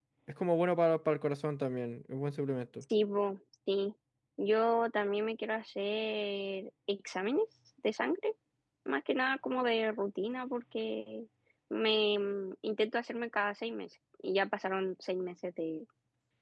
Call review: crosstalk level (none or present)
none